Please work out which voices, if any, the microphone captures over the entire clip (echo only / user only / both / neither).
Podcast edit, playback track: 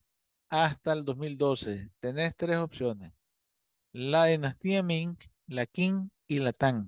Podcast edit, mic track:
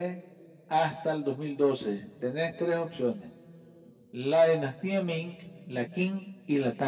echo only